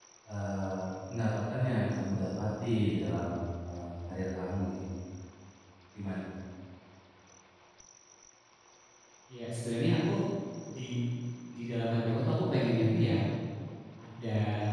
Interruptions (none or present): none